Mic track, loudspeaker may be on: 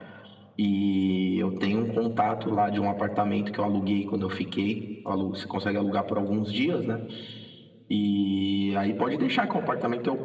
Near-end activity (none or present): none